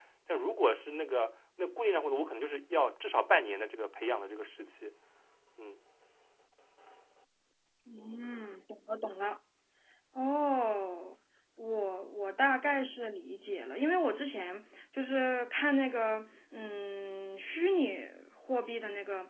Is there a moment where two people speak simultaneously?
No

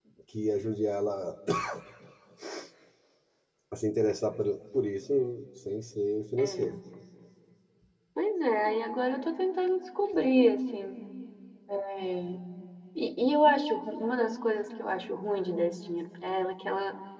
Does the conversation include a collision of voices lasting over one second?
No

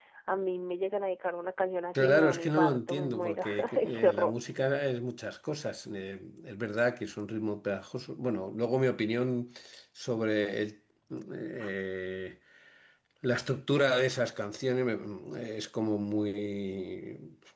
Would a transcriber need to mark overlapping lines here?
Yes, from 1.9 s

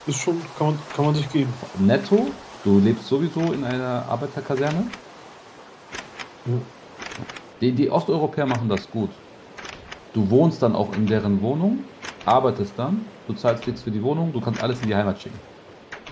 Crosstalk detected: No

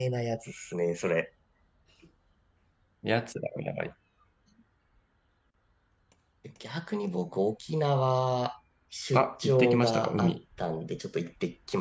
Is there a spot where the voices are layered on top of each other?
Yes, from 9.1 s

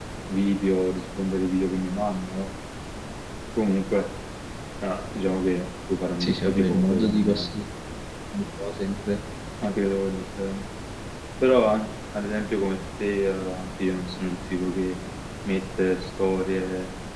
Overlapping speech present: Yes, from 6.2 s

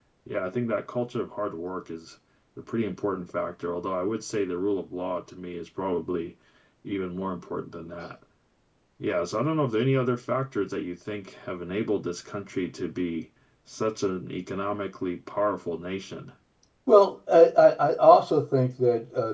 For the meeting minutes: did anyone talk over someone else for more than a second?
No

